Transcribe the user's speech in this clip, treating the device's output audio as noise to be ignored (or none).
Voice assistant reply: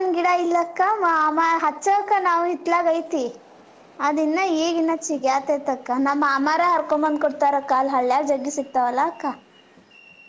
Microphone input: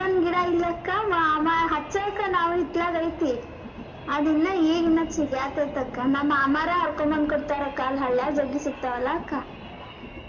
none